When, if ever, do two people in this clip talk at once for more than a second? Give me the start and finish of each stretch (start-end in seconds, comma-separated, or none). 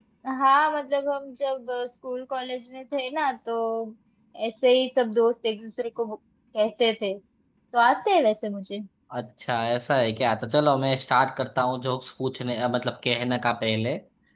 none